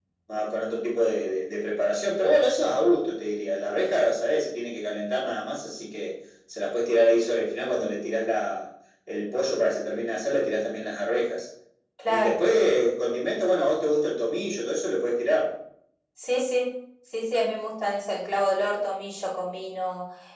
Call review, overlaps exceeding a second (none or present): none